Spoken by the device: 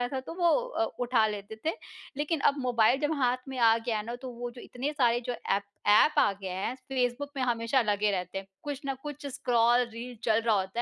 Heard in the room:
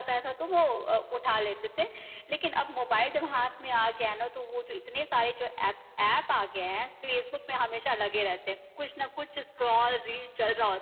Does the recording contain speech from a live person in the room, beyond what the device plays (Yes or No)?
No